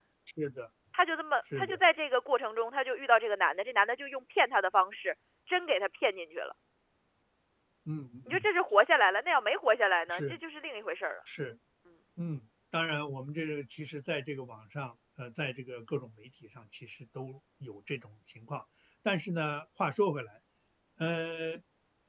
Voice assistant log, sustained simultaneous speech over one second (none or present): none